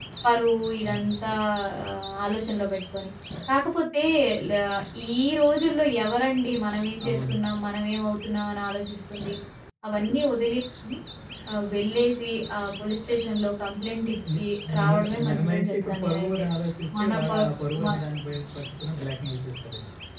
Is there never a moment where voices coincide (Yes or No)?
No